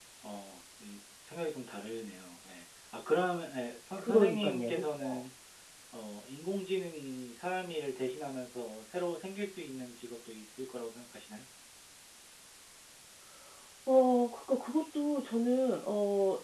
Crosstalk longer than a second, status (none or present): present